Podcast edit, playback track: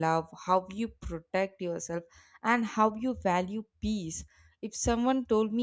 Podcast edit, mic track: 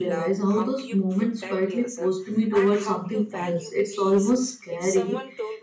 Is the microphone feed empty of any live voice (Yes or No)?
No